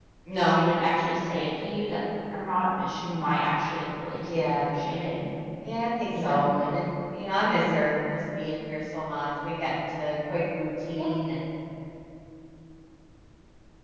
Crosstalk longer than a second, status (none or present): none